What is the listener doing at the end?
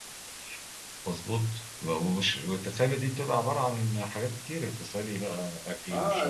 taking over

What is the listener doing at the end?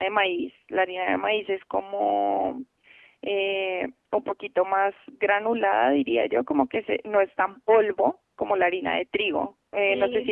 listening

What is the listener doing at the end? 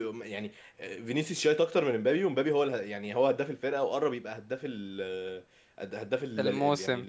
listening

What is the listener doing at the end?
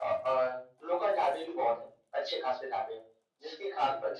listening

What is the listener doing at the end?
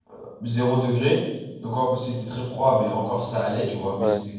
listening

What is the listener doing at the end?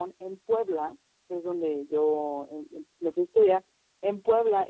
listening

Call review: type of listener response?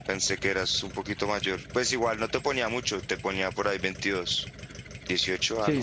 taking over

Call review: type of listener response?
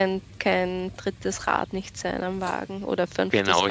taking over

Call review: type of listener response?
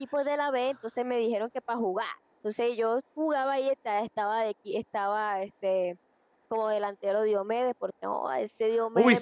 taking over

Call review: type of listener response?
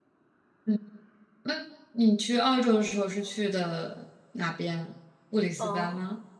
taking over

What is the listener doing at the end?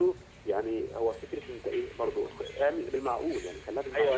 taking over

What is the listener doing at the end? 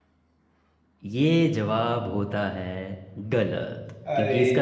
listening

